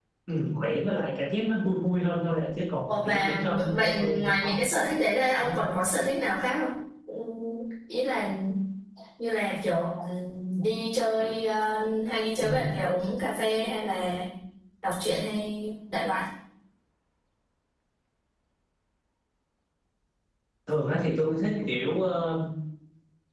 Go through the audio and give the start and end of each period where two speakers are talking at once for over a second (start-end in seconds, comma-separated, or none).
2.9-4.6